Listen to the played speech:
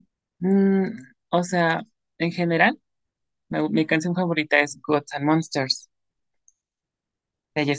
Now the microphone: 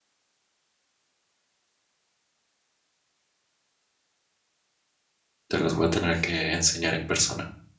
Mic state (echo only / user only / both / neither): user only